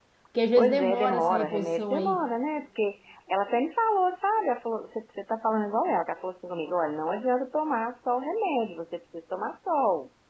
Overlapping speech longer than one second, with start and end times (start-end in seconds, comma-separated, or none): 0.6-2.2